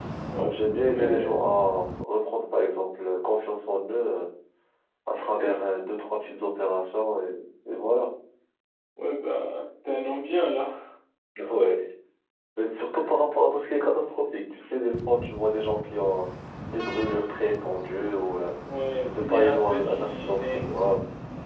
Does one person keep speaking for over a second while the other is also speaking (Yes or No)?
Yes